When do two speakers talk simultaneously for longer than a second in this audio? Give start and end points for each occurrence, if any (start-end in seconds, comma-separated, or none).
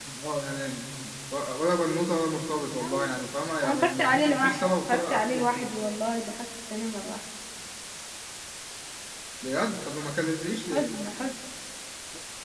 3.6-5.7